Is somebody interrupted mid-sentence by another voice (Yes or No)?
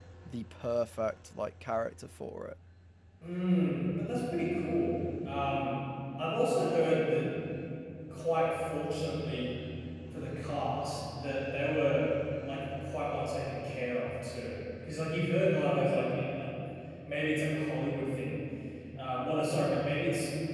No